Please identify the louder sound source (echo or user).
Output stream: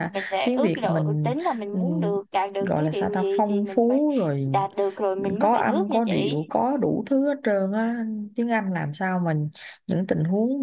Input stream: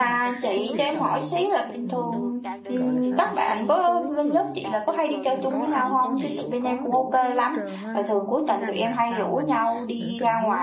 user